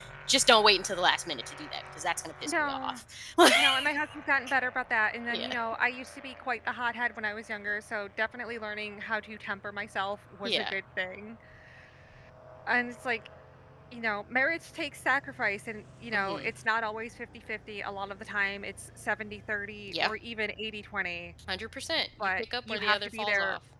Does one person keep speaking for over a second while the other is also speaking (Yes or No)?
Yes